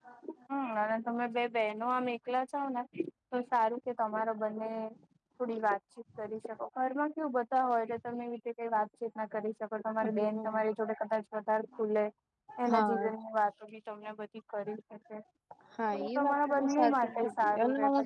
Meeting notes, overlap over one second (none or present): present